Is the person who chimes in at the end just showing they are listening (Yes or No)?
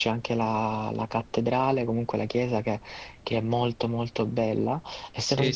Yes